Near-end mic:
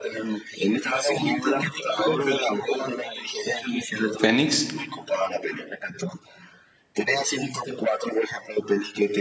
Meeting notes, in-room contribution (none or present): present